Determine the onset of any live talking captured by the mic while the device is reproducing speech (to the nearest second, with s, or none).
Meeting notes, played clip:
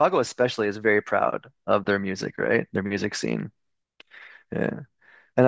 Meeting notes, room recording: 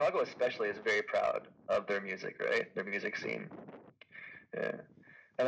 none